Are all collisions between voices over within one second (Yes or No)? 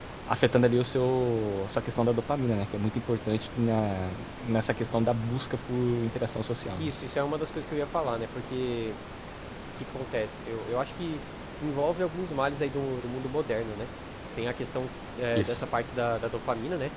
Yes